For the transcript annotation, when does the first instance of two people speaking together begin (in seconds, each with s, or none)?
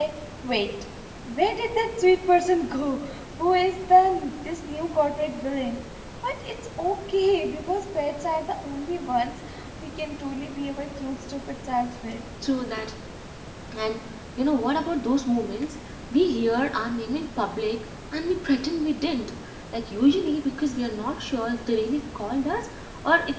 none